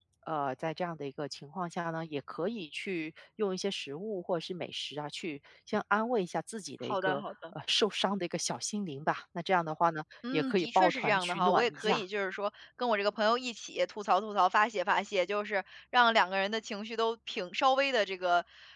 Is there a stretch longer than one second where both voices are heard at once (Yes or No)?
Yes